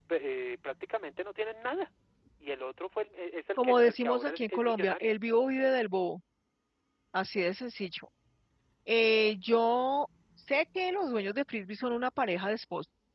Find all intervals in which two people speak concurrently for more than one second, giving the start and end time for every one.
3.6-5.1

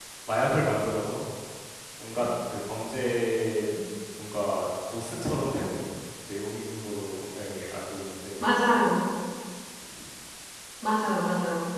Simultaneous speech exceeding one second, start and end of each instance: none

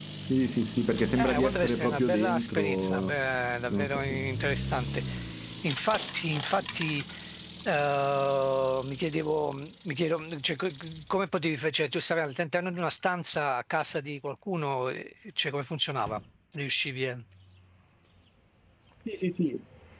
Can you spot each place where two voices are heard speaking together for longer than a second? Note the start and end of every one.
1.2-3.1

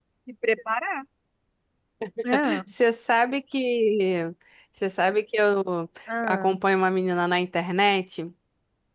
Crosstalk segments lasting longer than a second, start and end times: none

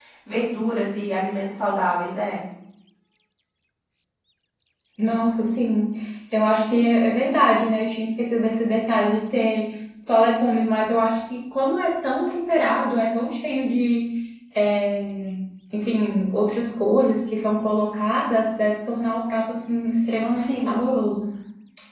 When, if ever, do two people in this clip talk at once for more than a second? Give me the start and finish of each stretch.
none

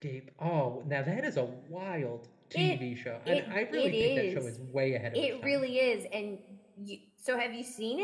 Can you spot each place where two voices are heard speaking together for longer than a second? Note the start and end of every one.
3.3-4.6

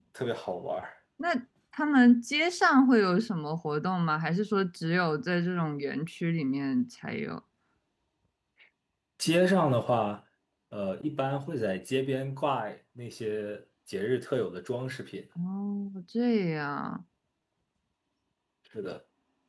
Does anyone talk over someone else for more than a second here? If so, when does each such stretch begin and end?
none

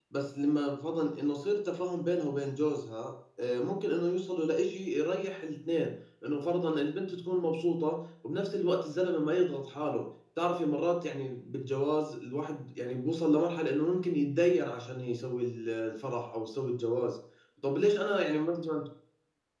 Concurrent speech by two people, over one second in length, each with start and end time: none

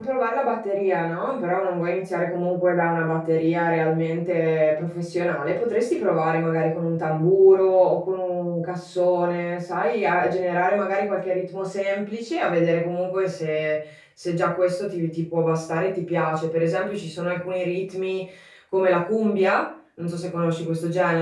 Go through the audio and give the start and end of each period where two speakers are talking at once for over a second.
none

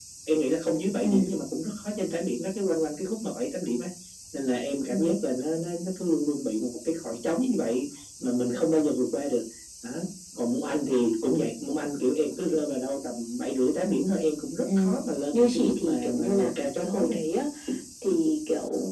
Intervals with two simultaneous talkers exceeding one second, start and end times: 15.3-17.2

